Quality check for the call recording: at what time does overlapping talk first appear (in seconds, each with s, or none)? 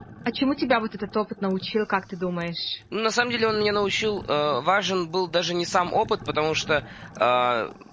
none